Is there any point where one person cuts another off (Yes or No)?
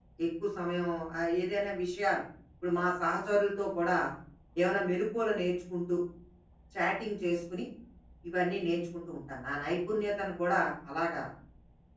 No